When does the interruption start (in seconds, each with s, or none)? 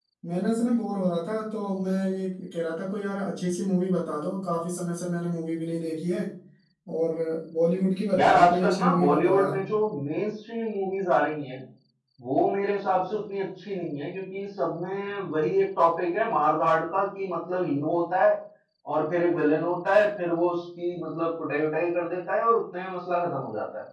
8.2 s